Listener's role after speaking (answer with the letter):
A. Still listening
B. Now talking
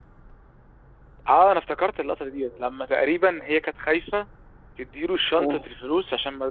A